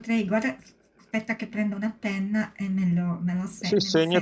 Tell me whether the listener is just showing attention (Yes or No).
No